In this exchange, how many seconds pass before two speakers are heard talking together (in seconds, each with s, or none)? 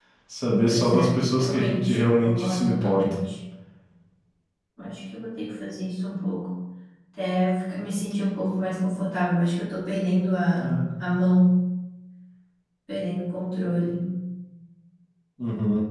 0.6 s